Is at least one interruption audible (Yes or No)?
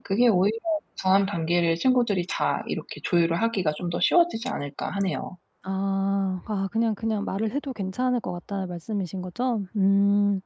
No